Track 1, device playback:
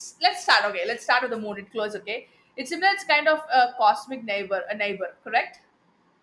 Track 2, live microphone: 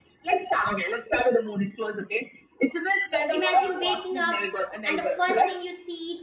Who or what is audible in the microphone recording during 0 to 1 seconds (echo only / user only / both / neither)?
echo only